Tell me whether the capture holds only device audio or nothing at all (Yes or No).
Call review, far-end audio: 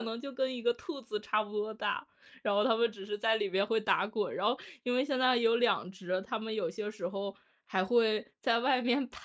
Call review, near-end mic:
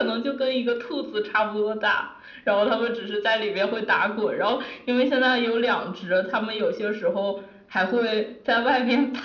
Yes